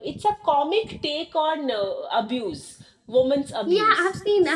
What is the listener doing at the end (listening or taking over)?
taking over